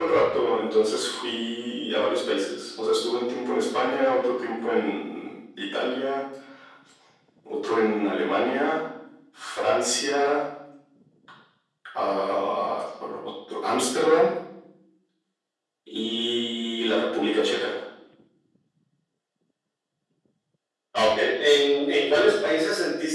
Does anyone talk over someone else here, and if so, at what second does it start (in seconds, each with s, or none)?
none